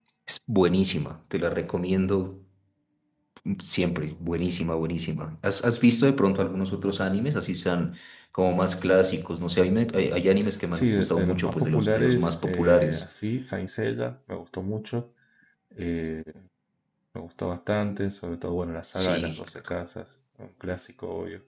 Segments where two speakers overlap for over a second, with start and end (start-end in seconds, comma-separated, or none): 10.7-13.1